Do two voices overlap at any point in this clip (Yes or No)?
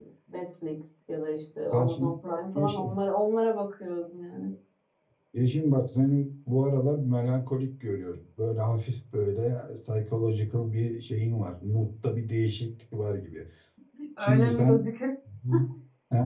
Yes